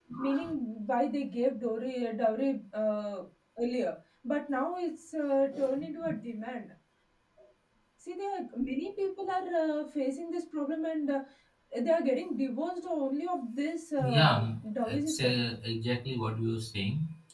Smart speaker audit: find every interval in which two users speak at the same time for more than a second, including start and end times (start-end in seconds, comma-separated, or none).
none